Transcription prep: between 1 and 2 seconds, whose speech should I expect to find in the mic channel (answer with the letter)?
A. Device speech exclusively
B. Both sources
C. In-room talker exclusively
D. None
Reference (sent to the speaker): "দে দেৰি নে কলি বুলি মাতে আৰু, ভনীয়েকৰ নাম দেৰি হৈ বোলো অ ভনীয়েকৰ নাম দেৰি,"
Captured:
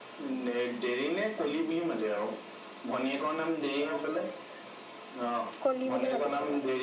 A